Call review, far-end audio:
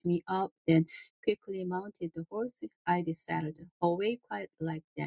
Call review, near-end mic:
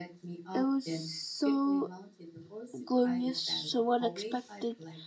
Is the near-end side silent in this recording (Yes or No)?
No